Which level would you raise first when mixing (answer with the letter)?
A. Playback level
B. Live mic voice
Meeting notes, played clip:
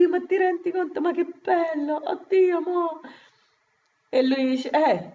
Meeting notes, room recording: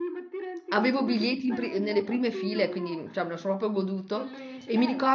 A